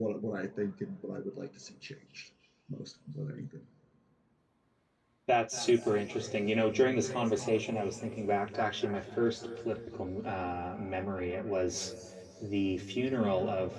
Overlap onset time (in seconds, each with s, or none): none